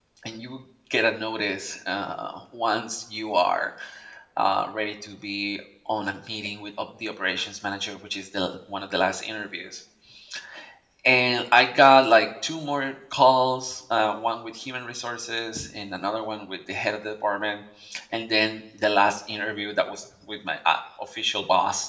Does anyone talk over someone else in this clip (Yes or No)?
No